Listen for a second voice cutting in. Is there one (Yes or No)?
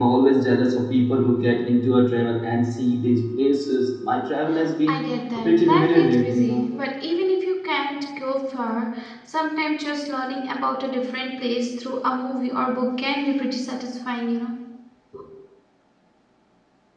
Yes